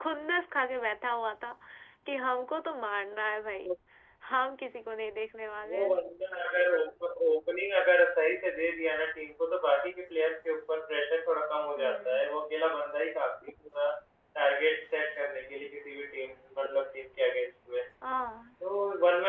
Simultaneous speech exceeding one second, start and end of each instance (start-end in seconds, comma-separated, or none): none